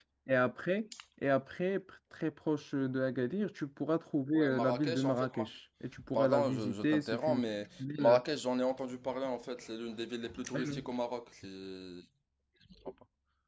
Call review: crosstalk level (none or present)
present